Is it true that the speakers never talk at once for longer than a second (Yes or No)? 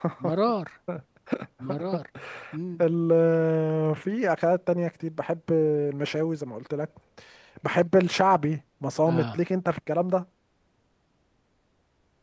Yes